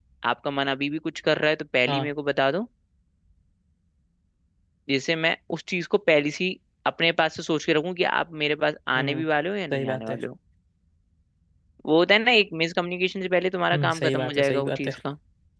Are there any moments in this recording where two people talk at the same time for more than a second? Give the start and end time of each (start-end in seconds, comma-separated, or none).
13.7-15.0